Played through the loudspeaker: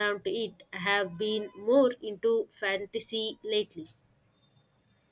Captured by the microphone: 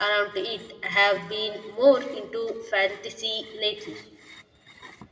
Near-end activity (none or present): none